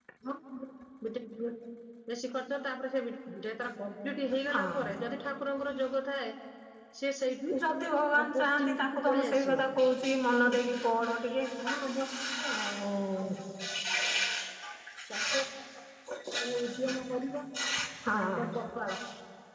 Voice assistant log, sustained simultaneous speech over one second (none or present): present